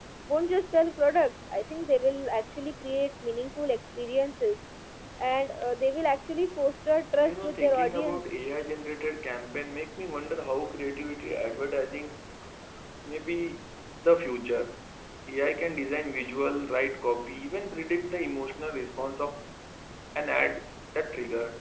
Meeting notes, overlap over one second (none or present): present